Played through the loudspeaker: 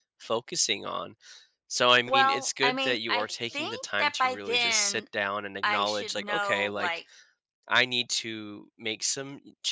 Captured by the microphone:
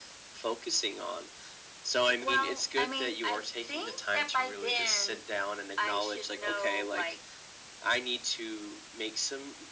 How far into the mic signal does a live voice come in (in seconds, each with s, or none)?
none